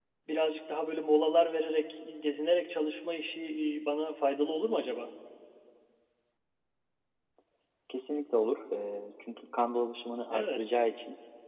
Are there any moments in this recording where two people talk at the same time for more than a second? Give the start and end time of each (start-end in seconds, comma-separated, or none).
none